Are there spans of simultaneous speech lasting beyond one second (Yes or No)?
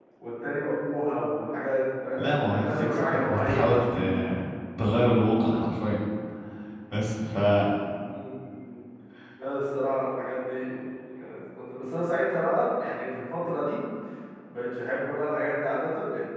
Yes